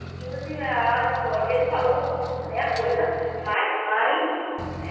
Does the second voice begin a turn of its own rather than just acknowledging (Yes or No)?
No